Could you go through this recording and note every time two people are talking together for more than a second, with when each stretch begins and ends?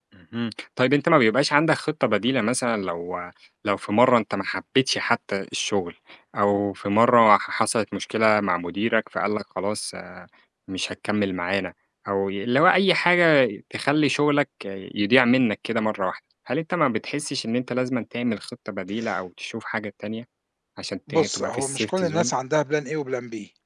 21.1-22.3

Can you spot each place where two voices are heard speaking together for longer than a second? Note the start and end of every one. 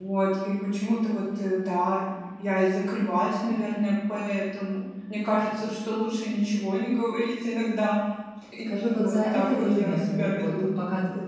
8.7-10.5

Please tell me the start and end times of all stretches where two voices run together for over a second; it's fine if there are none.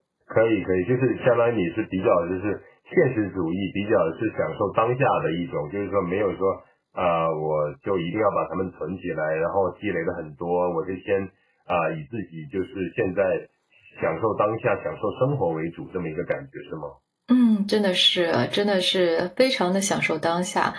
none

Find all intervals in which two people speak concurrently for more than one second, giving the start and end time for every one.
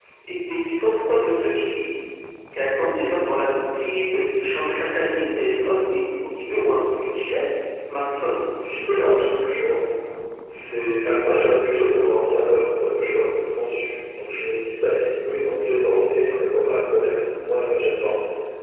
none

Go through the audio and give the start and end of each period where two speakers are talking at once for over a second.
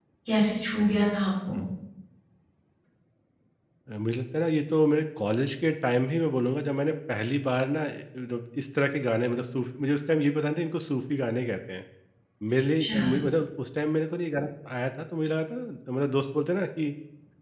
none

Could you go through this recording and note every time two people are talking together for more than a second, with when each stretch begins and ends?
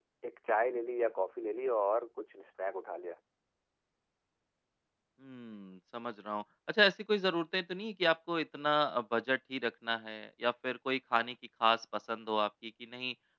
none

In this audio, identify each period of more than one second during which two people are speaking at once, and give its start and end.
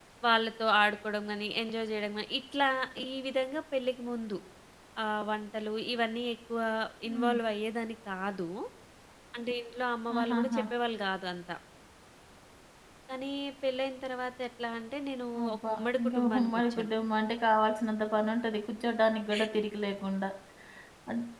15.5-16.9

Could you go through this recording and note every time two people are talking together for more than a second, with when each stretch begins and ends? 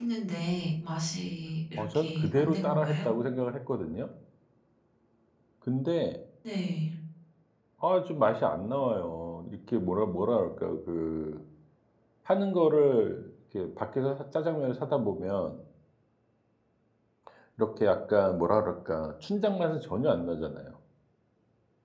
1.8-3.1

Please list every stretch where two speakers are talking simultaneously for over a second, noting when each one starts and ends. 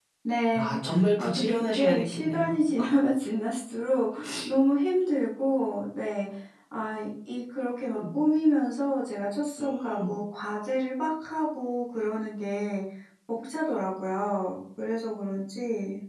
1.2-2.6

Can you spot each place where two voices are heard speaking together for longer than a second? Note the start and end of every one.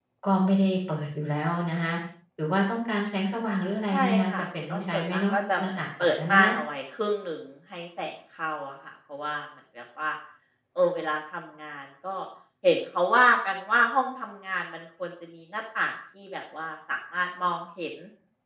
3.9-6.5

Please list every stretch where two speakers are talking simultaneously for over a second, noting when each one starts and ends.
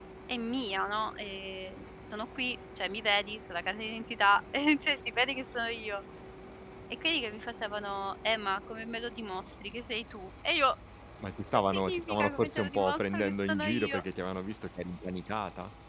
11.7-14.0

